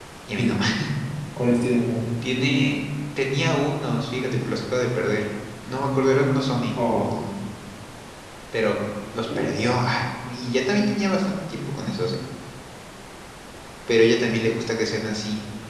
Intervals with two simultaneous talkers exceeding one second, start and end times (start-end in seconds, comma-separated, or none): none